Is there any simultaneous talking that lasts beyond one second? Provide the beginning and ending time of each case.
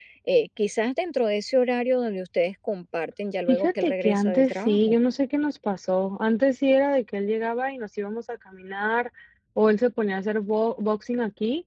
3.5-5.0

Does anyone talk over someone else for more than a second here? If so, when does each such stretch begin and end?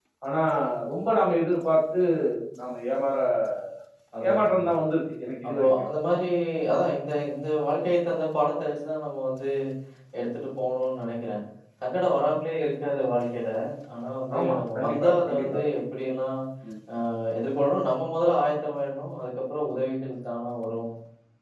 14.4-15.7

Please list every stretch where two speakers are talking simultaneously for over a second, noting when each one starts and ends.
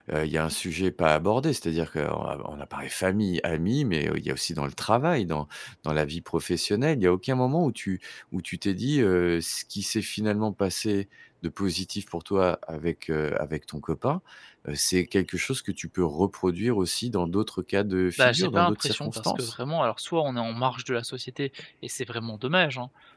18.2-19.5

